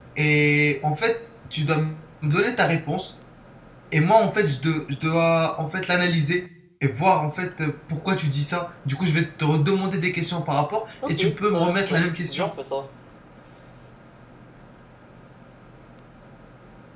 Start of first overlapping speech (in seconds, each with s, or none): 11.0 s